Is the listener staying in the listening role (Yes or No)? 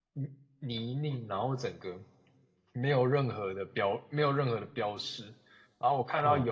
Yes